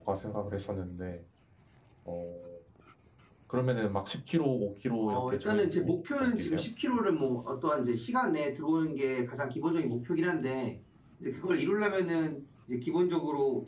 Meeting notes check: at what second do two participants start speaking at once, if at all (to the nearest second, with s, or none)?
5 s